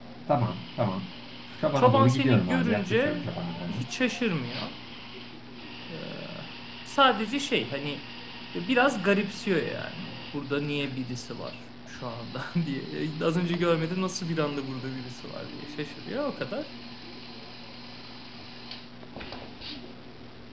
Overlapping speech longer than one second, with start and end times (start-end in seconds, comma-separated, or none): 1.8-3.2